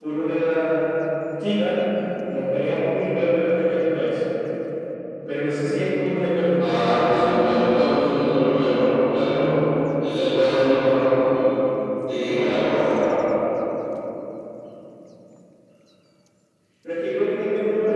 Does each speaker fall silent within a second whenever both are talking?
No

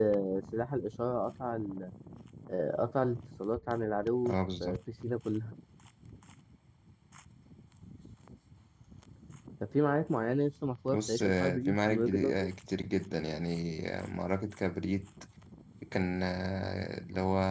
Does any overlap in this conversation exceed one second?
Yes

